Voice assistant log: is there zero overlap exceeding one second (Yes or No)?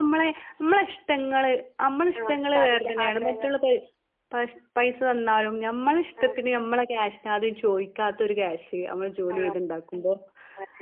No